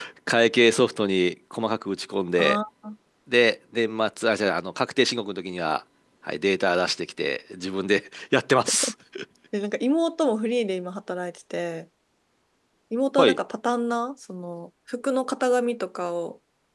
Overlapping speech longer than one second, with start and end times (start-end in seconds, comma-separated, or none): none